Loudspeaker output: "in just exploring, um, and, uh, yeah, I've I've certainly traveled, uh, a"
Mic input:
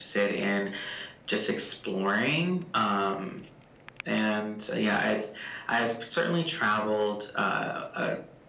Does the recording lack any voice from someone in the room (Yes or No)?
Yes